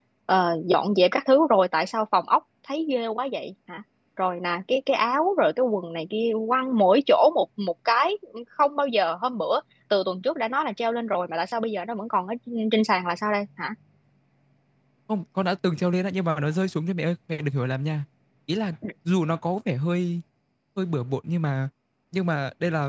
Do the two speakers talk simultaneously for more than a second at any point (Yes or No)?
No